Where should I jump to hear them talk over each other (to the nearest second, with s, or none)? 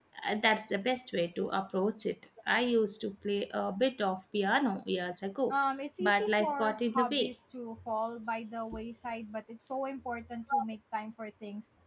6 s